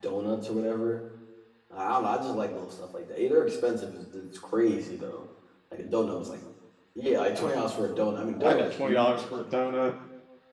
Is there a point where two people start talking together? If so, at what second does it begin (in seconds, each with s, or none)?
8.4 s